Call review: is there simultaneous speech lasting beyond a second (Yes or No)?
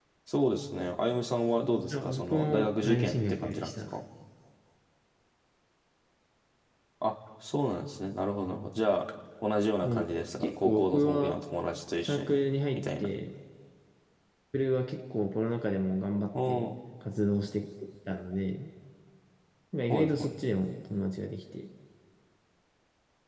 Yes